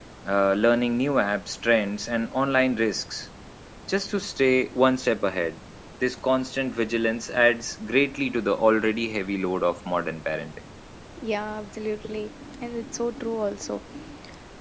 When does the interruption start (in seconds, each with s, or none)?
none